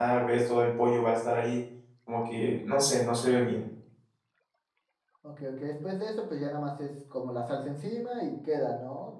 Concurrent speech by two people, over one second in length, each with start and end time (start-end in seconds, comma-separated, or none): none